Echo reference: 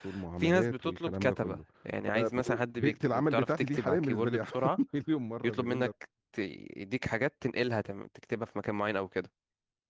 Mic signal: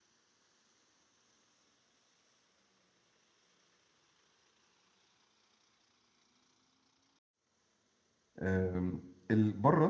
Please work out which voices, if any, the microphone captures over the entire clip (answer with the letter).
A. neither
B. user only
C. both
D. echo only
B